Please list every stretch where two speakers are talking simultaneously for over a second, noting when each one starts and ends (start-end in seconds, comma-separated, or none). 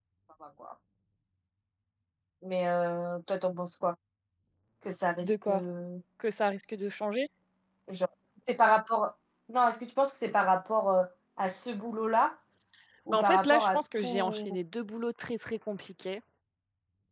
13.1-14.4